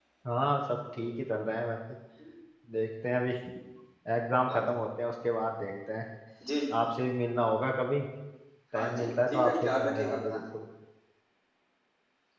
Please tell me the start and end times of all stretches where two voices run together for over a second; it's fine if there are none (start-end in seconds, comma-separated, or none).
8.7-10.4